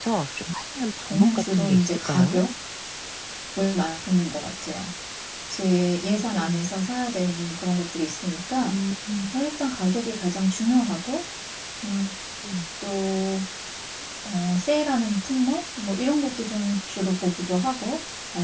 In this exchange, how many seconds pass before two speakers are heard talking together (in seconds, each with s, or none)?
1.1 s